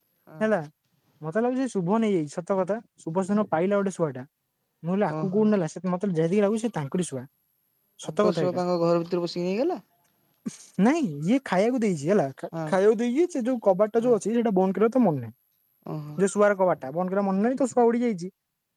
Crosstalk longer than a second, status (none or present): none